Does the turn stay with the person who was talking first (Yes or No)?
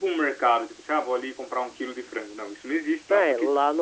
No